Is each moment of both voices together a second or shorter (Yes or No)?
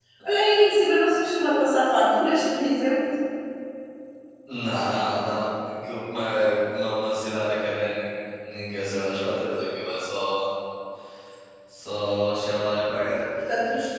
Yes